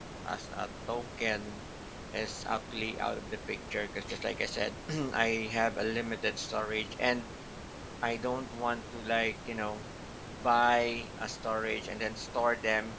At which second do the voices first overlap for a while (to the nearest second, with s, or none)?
none